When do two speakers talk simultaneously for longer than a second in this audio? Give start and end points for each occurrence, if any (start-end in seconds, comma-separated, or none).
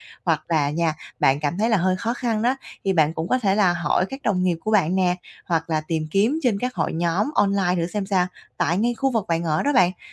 none